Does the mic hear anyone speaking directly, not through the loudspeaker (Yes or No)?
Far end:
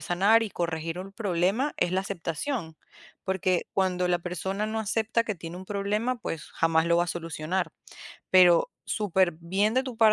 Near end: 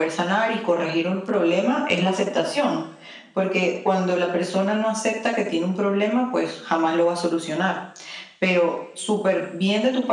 No